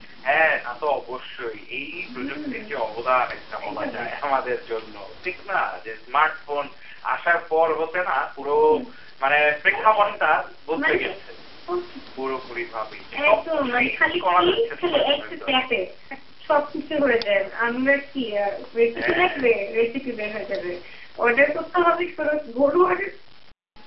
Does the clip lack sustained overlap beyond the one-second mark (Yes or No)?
No